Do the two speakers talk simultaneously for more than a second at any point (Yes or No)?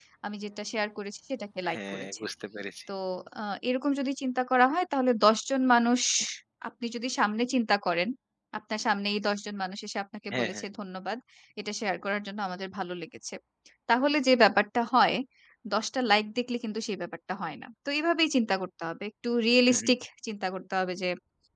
No